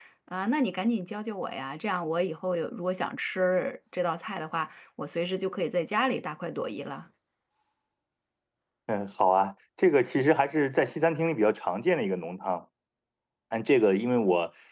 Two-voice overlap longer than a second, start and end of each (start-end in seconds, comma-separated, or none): none